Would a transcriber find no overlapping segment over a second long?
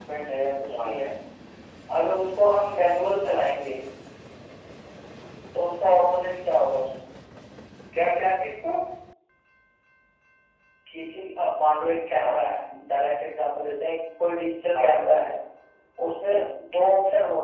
Yes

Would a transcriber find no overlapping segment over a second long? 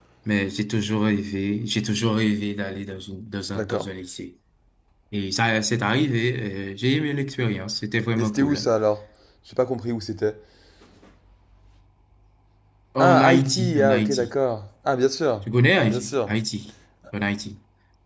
No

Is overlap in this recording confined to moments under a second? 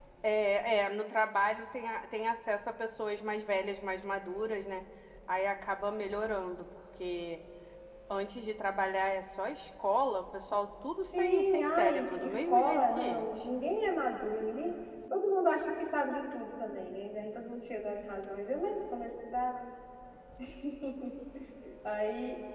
No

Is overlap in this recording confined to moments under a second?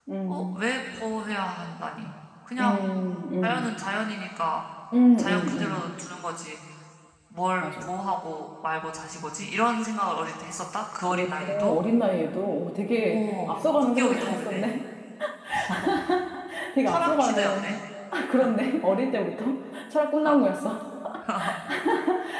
No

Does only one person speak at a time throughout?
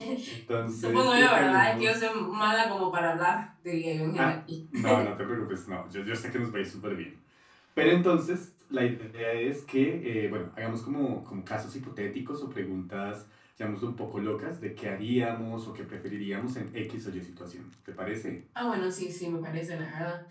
No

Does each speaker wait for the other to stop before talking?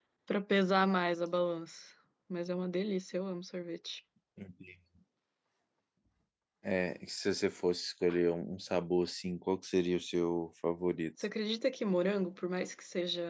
Yes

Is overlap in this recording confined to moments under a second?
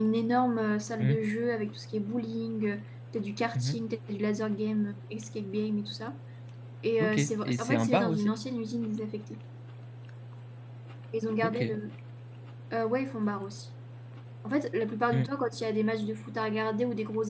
No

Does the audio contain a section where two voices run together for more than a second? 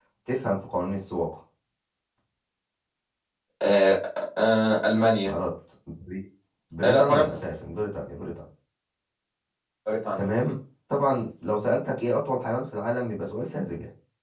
No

